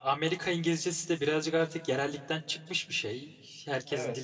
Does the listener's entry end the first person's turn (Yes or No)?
Yes